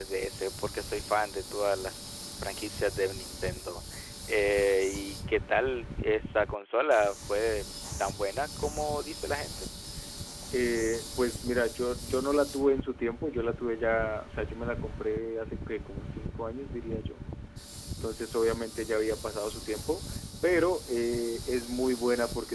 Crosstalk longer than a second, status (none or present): none